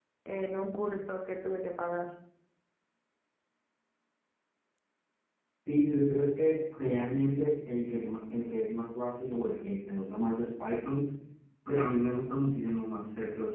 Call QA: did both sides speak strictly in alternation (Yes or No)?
Yes